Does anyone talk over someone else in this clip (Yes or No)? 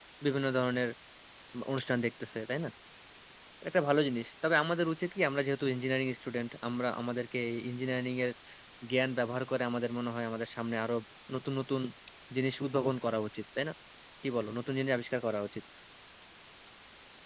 No